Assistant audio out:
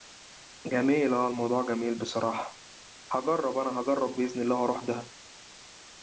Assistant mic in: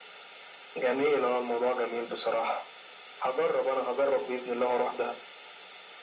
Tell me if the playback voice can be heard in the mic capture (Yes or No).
Yes